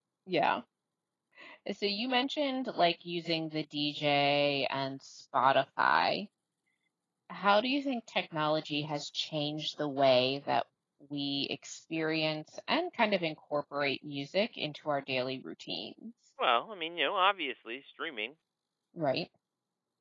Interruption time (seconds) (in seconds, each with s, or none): none